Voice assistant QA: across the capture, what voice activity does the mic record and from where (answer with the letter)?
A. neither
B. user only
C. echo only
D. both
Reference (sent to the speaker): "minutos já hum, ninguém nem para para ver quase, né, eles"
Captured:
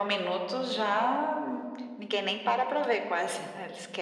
C